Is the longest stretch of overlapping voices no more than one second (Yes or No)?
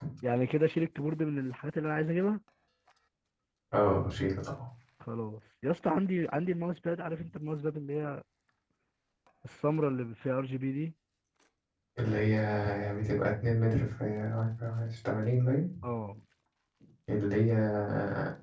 Yes